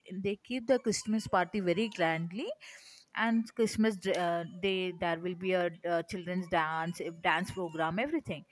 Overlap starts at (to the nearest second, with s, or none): none